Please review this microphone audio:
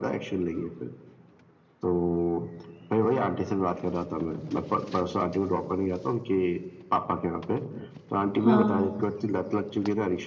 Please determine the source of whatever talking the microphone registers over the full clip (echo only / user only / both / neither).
both